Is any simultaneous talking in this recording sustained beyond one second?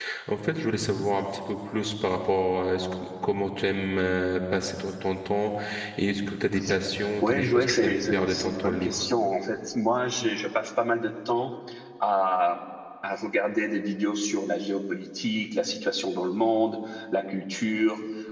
Yes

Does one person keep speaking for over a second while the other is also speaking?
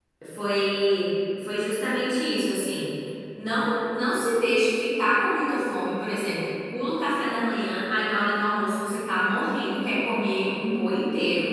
No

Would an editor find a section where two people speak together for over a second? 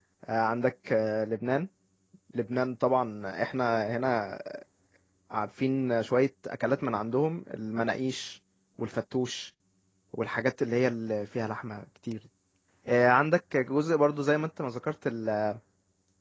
No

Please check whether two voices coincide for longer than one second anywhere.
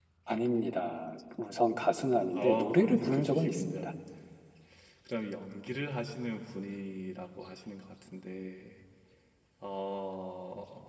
Yes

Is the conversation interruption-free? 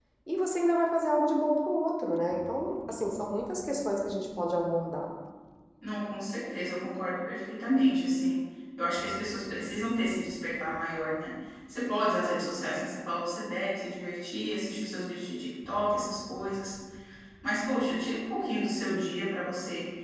Yes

